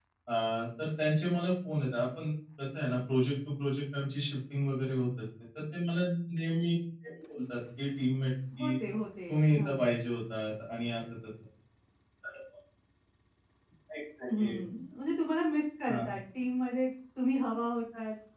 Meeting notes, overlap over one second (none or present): none